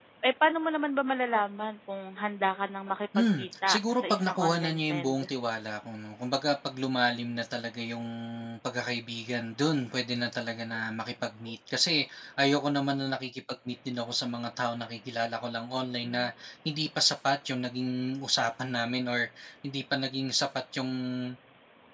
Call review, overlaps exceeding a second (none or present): present